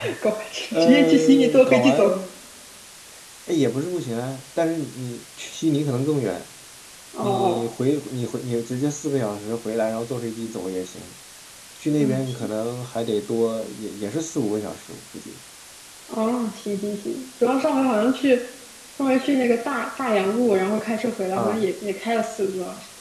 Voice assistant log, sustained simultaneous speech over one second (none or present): present